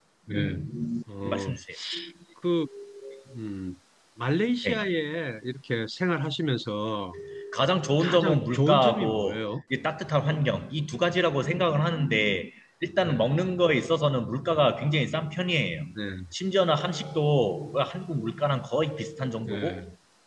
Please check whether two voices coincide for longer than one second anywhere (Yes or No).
Yes